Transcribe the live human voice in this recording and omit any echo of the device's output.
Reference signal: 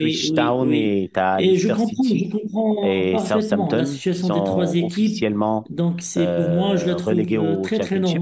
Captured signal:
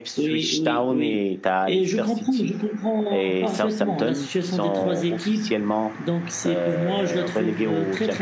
none

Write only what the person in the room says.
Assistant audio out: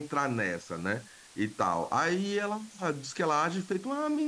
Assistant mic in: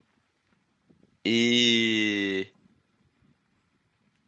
E

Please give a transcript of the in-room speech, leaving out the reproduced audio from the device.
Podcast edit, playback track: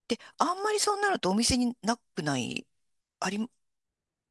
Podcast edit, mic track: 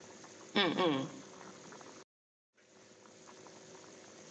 うん、うん、

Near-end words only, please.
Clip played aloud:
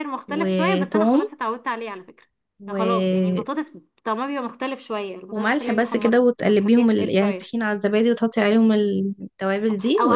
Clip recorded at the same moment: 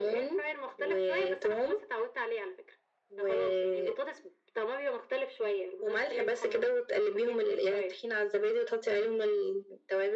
none

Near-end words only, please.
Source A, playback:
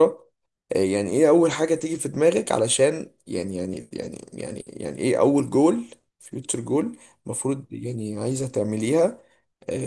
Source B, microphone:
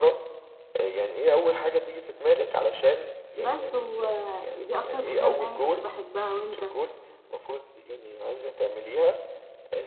بس ودي اكتر مادة يعني كنت بحبها وانت

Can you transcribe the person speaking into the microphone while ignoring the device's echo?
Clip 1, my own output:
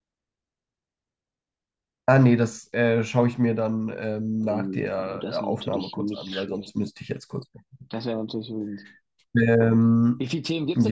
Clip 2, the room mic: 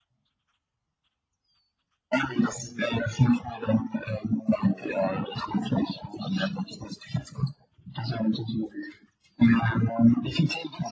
none

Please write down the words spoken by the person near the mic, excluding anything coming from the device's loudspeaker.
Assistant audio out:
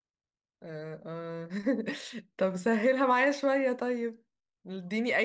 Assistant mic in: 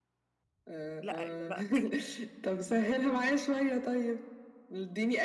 لا إيه ده؟ لا

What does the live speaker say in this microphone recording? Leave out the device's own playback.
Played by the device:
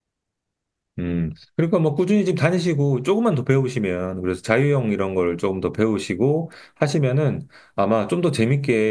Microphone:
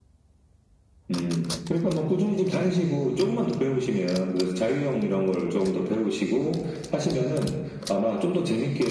none

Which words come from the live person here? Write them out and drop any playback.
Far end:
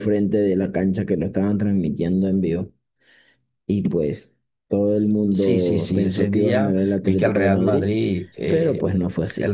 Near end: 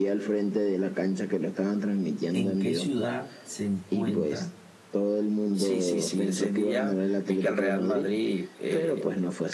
¿en qué ciudad se encuentra

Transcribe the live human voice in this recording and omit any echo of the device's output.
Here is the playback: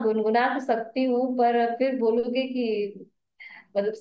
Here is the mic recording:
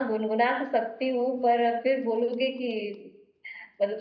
none

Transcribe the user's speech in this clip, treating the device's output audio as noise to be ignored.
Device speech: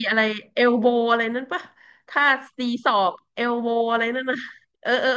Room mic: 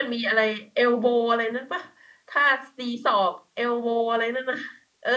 none

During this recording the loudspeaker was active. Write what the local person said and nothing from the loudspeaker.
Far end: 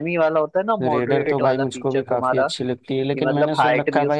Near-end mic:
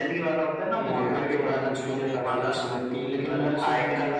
क्योंकि आजकल तो नई नई गाड़ियां हर रोज मतलब इतनी

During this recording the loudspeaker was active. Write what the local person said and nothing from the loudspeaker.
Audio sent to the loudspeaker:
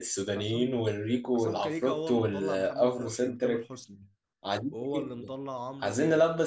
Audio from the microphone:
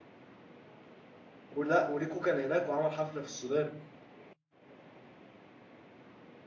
ولا وريكو كان هناك وعمل حفلة في السودان

